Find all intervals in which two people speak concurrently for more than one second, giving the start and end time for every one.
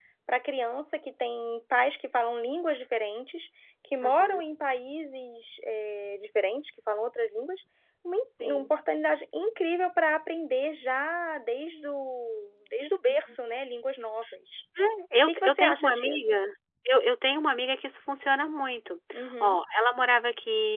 15.2-16.4

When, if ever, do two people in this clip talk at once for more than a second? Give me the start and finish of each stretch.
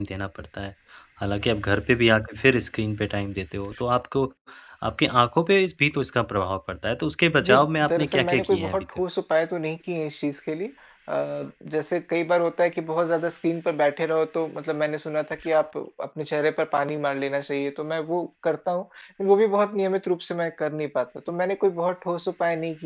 7.5-8.8

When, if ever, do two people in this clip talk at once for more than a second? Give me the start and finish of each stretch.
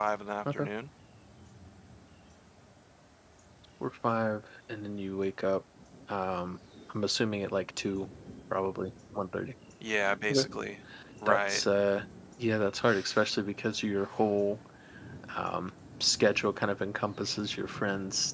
none

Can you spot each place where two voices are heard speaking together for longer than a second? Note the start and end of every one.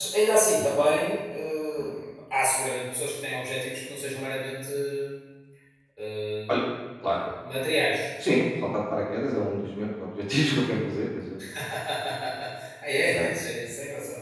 none

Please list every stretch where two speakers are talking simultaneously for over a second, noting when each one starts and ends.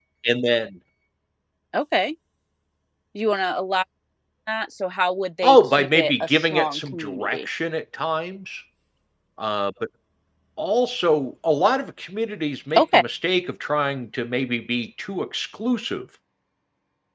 5.4-7.5

